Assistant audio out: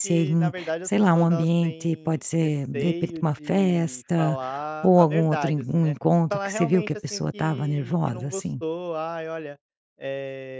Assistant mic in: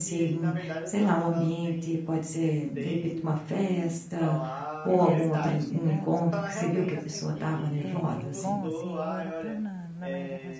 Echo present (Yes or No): Yes